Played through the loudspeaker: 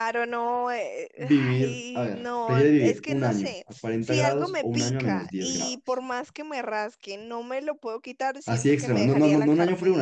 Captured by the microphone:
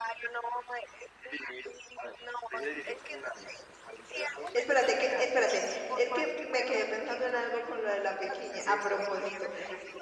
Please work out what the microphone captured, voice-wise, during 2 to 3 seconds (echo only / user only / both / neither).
echo only